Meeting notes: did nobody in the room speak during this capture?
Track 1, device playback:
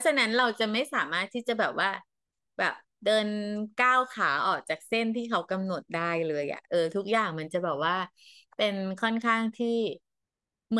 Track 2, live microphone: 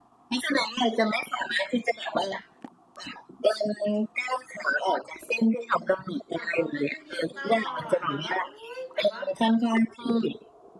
No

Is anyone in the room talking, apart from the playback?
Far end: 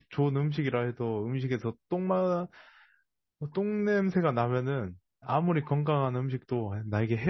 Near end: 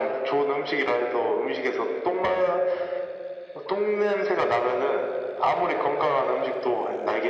No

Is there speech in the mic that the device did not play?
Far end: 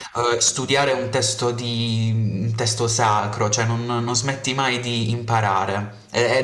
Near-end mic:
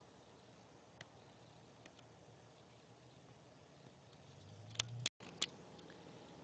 No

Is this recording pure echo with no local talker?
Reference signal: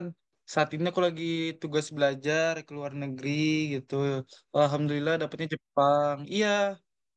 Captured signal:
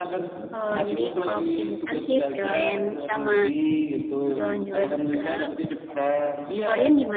No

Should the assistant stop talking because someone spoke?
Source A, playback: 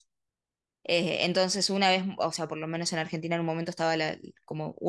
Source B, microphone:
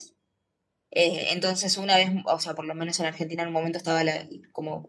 No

